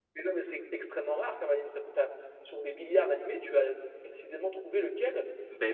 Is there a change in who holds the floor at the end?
Yes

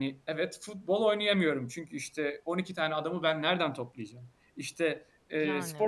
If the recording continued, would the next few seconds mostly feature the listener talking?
No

